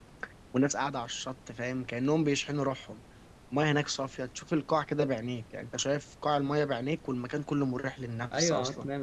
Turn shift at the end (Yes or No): Yes